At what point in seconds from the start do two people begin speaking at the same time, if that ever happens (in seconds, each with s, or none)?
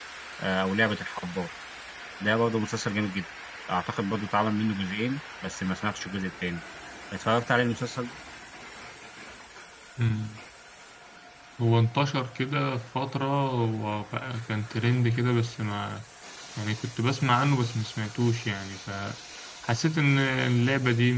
none